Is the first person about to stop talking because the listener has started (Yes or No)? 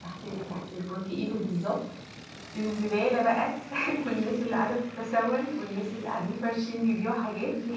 No